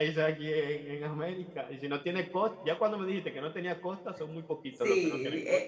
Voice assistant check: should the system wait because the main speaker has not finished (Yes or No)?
No